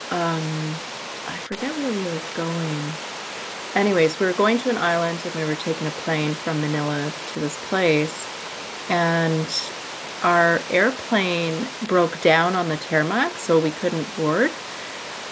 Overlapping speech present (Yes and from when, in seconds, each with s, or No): No